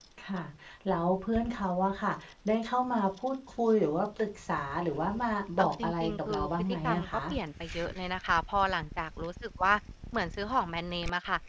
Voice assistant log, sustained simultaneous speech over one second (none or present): present